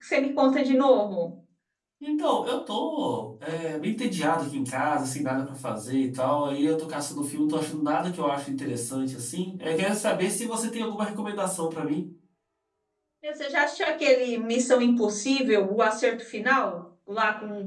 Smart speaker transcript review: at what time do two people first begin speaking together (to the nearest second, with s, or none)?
none